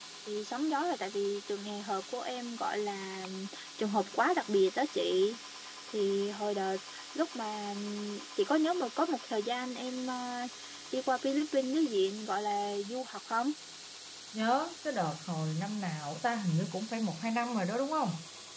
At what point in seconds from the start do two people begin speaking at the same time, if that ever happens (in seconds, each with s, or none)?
none